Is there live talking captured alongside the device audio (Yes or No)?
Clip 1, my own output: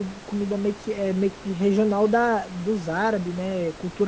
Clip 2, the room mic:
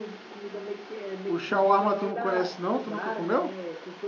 Yes